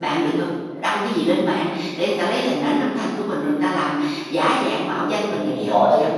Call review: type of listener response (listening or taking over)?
taking over